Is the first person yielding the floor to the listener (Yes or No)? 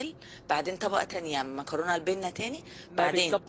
Yes